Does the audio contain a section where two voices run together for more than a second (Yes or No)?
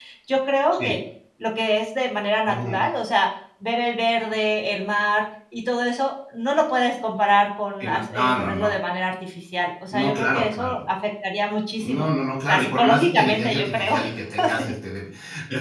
Yes